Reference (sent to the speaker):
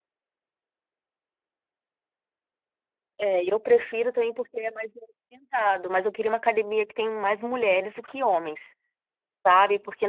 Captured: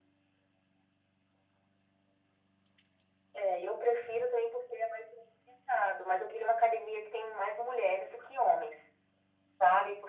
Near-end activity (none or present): none